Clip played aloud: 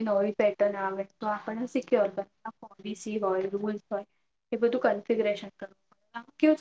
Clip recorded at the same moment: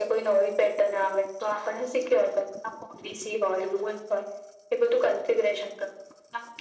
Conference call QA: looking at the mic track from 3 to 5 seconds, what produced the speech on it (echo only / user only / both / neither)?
echo only